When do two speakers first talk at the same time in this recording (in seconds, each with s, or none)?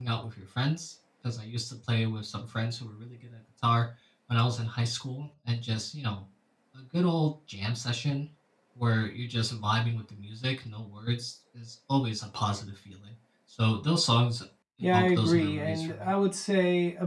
14.8 s